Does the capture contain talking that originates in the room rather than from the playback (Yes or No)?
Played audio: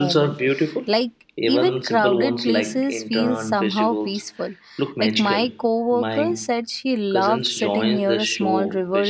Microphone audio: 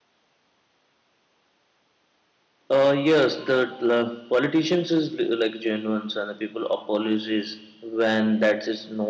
Yes